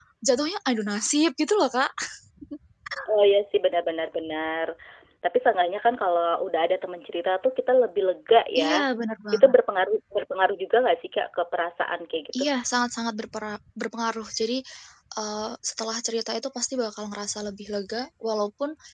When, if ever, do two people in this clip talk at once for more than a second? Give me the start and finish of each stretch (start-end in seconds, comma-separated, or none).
none